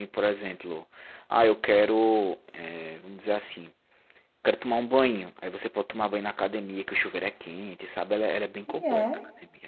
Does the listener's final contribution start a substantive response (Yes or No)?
Yes